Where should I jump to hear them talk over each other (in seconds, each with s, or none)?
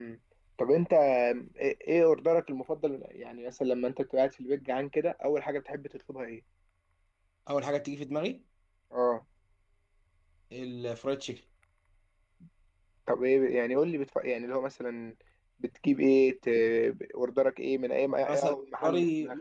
18.1 s